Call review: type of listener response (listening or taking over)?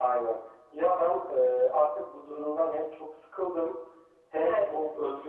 listening